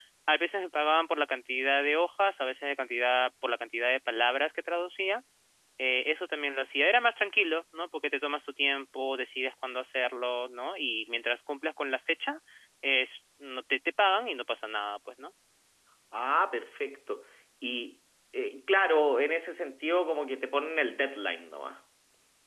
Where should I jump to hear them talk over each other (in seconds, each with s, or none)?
none